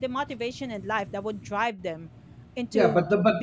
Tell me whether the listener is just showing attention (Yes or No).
No